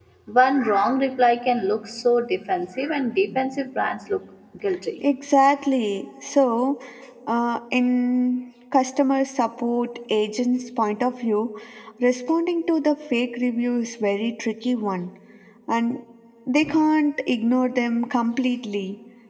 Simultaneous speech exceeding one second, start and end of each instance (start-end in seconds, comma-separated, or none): none